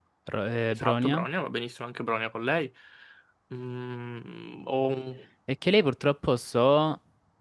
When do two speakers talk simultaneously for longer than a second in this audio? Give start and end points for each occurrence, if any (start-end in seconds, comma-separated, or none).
none